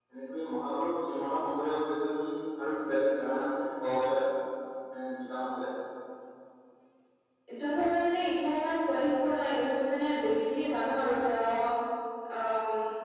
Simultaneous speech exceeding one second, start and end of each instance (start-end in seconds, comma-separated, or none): none